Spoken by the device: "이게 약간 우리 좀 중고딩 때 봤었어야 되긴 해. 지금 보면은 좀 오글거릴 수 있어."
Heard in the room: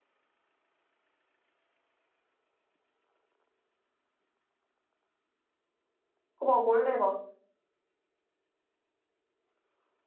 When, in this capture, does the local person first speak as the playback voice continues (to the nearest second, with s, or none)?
6 s